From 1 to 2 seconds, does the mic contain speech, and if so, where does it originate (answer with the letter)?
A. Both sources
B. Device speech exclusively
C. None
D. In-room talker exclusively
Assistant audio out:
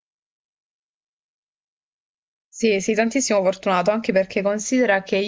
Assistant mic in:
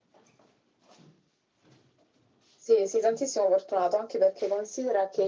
C